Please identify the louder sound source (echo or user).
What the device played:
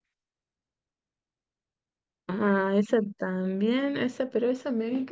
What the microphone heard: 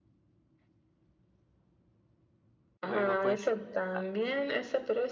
echo